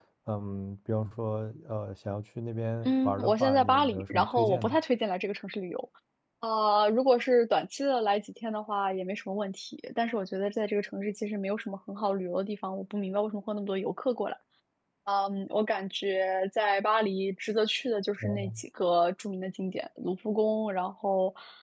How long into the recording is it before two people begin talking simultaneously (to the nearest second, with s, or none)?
3 s